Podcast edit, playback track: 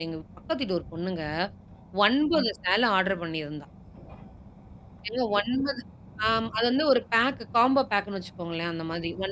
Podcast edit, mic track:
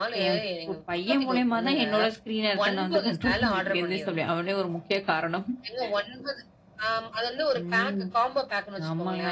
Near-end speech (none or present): present